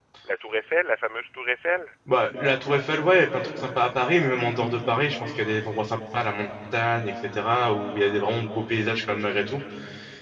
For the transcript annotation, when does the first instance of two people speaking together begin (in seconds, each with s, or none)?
none